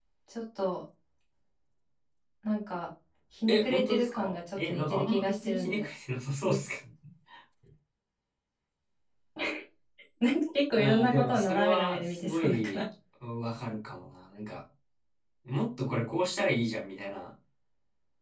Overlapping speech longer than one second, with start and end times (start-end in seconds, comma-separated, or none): 3.5-5.9, 10.7-12.8